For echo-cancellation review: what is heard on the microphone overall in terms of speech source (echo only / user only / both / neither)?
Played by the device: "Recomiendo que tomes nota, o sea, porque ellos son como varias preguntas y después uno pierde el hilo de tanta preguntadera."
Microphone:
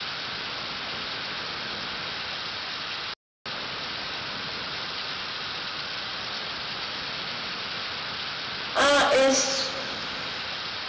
user only